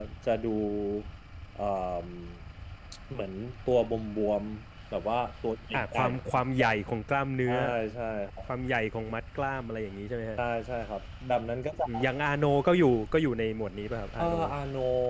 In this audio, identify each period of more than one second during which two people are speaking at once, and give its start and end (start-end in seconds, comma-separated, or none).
none